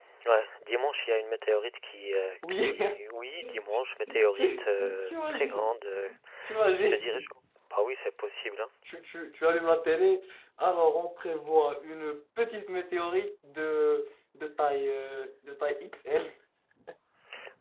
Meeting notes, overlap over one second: present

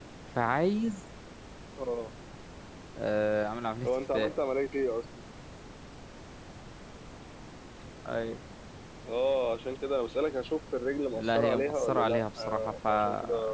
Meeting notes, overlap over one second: present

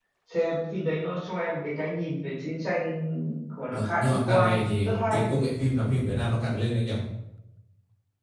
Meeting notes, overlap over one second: present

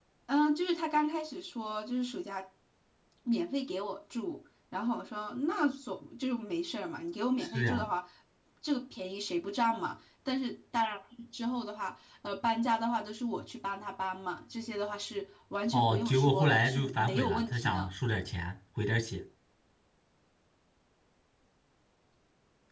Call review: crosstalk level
present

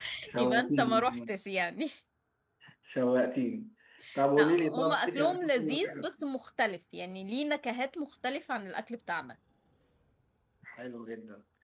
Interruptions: present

